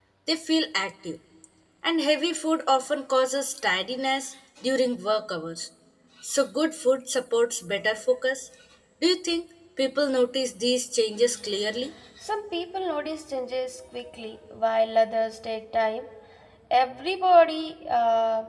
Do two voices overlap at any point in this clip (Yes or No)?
No